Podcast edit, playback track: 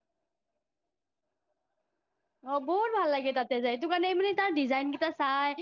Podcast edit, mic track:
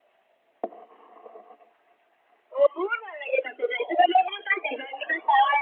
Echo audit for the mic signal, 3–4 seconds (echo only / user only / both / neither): echo only